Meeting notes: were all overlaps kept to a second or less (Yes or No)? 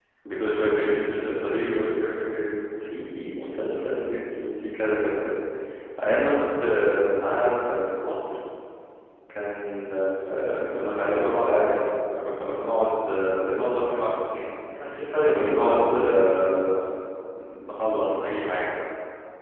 No